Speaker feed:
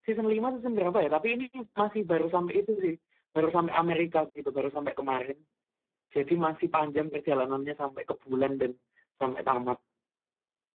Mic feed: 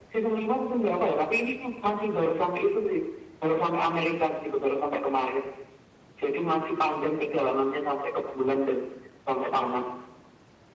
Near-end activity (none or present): none